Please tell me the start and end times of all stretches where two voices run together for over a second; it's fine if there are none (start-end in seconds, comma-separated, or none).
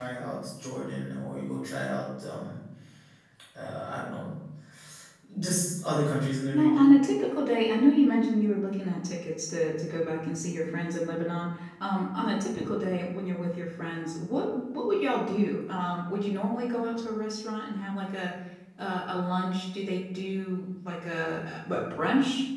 none